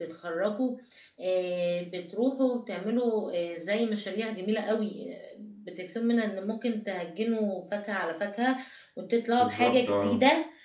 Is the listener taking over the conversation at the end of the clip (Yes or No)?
No